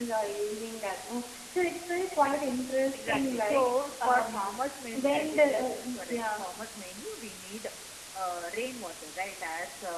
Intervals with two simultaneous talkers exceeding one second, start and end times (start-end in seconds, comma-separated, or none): 2.9-4.6, 4.9-6.4